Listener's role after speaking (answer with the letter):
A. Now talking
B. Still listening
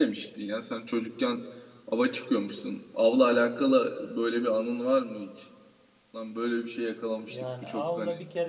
A